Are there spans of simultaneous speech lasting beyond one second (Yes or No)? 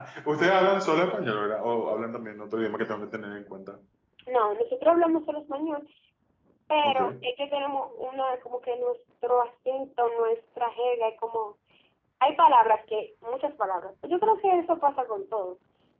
No